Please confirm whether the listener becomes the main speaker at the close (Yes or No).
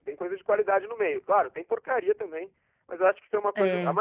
No